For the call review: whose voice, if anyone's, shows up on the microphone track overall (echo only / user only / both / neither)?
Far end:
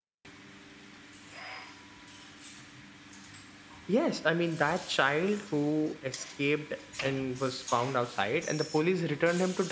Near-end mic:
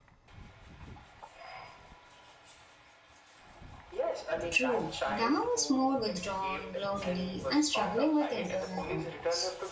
both